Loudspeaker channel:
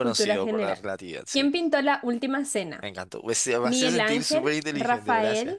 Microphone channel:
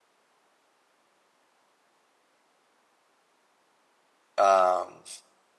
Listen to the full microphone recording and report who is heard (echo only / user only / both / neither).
user only